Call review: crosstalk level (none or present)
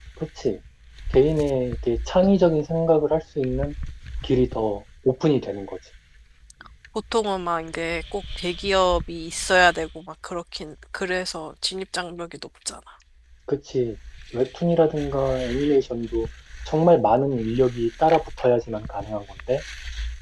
none